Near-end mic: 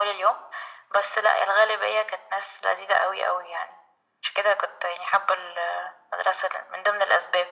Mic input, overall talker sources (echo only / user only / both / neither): echo only